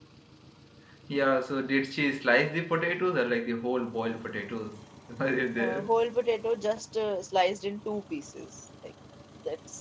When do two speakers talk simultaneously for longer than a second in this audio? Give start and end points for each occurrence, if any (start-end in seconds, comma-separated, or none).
none